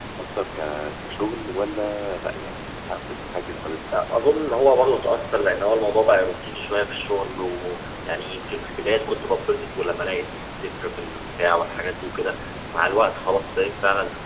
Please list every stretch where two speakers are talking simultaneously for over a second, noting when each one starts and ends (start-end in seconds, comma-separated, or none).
none